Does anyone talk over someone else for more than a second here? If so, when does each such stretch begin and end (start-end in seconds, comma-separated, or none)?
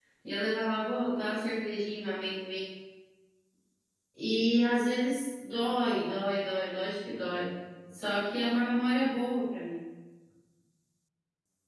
none